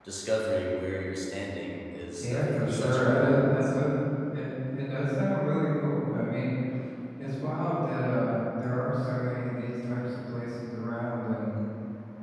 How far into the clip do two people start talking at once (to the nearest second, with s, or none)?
2 s